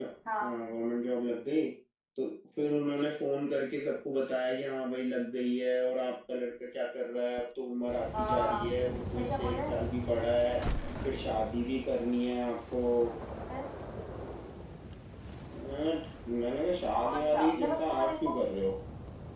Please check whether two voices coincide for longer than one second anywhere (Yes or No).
Yes